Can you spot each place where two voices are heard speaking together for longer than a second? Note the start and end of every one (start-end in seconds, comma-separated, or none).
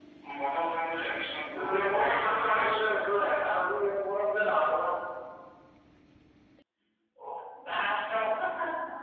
1.5-2.9